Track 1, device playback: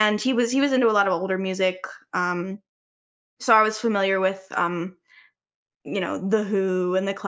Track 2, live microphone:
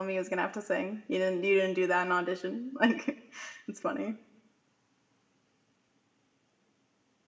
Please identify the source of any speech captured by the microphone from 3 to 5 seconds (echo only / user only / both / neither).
user only